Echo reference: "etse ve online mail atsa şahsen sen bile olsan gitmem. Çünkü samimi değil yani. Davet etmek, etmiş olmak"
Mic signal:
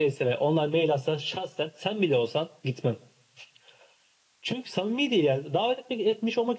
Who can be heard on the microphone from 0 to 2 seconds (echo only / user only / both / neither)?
echo only